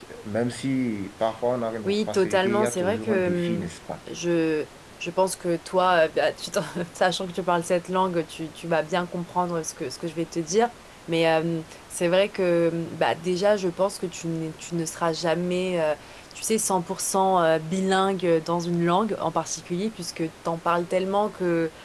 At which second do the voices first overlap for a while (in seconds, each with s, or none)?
1.8 s